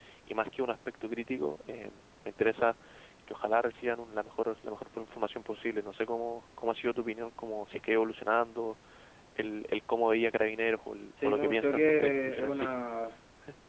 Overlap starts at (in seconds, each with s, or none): 11.2 s